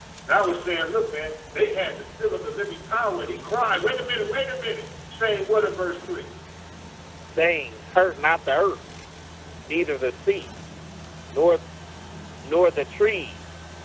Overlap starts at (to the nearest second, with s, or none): none